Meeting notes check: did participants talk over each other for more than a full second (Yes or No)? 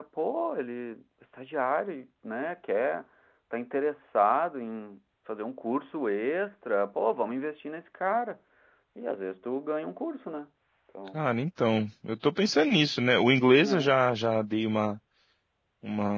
No